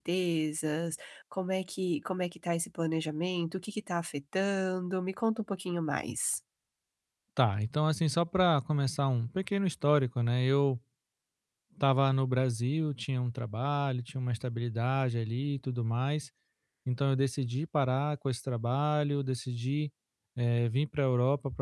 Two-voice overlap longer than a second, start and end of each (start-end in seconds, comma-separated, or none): none